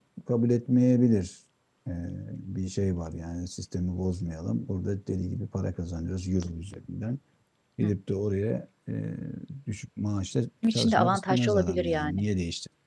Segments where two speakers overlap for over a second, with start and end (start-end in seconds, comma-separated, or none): 10.8-12.2